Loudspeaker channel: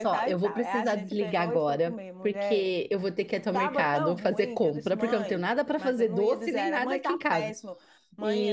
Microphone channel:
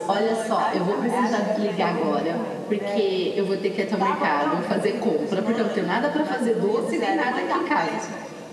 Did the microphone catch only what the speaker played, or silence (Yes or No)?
No